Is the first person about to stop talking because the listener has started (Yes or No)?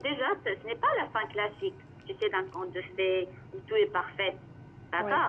No